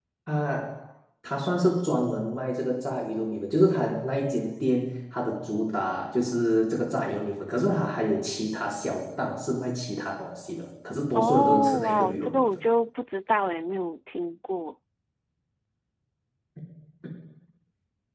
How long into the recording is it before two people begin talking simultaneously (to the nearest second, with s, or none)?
11 s